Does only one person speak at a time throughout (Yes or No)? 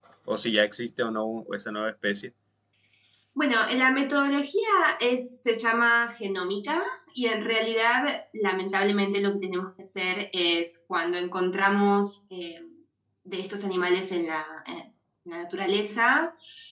Yes